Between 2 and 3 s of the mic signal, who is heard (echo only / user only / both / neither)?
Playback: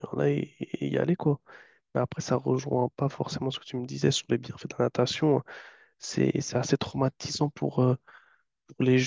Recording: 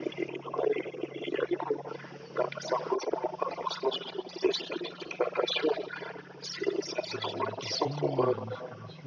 echo only